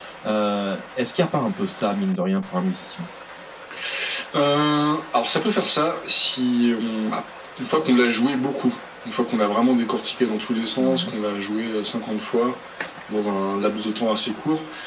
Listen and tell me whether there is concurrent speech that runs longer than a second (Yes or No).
No